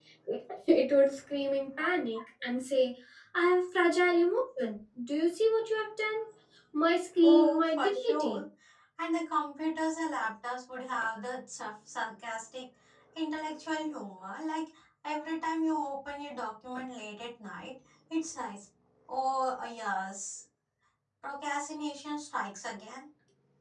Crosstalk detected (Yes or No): Yes